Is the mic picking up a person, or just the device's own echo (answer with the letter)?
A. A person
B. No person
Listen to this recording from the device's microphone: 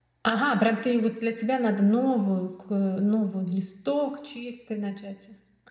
B